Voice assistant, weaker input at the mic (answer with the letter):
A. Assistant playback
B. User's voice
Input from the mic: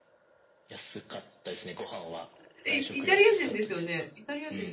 A